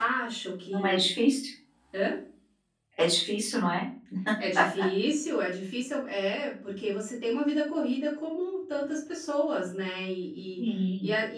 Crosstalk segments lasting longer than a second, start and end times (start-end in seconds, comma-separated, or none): none